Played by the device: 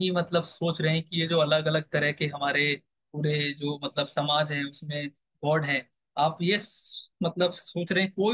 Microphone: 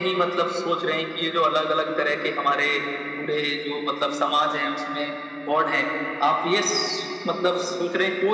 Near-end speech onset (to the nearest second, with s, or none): none